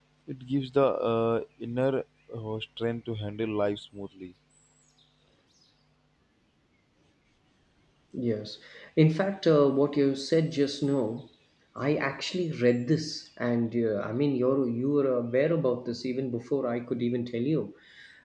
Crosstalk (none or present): none